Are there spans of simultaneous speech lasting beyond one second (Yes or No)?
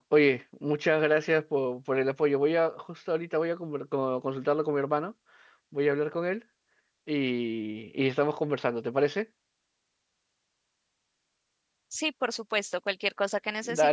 No